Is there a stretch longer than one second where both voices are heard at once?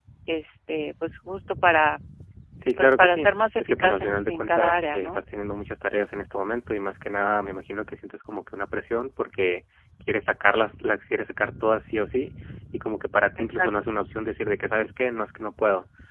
Yes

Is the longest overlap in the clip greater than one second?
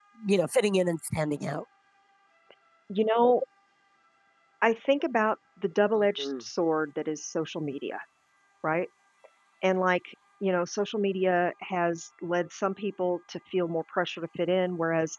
No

